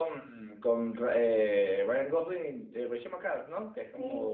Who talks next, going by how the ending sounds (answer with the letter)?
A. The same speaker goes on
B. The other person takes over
B